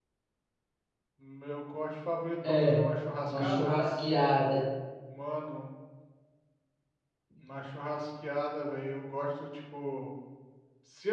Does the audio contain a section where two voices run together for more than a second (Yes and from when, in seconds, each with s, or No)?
No